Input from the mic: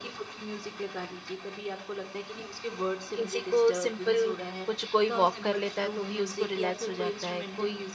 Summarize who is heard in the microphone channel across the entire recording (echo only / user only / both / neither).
both